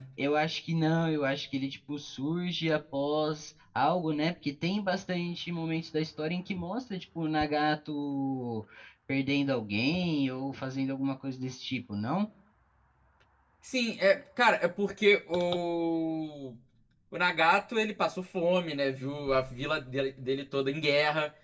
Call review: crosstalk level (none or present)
none